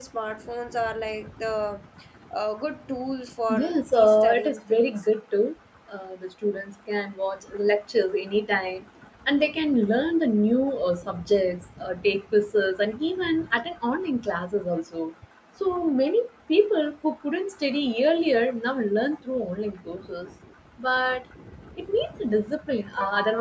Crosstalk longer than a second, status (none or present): present